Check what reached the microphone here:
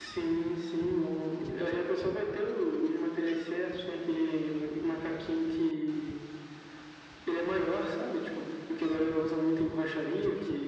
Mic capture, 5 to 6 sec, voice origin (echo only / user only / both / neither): echo only